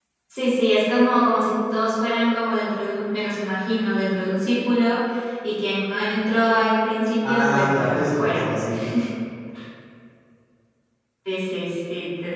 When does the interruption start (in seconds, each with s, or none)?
7.2 s